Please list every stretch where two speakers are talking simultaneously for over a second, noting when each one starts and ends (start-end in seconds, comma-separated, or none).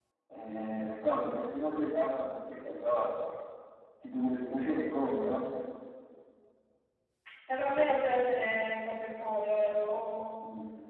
none